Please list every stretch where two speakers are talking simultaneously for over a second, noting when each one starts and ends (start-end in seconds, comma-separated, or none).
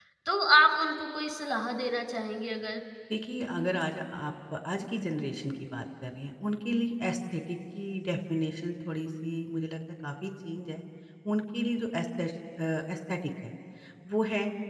none